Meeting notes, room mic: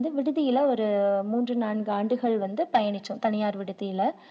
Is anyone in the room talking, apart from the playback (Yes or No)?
No